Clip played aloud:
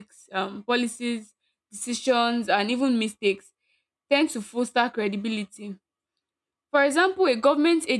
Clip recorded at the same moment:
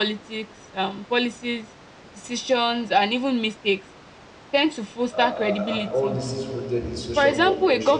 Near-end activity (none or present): present